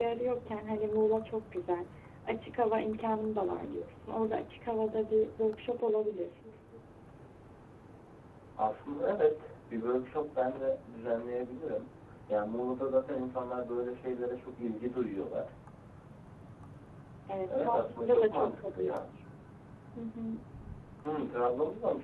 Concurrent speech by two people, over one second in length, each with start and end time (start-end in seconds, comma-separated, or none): 17.6-19.1